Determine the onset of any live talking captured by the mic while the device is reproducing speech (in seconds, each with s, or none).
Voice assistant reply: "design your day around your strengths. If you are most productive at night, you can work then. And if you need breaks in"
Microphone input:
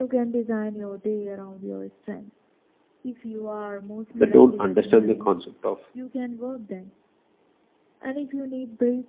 4.1 s